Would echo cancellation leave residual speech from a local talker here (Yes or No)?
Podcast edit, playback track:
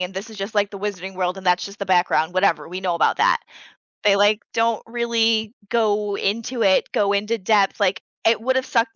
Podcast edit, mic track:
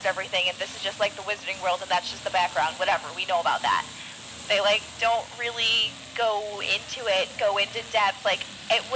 No